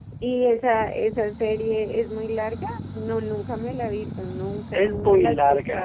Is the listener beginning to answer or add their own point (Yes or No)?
Yes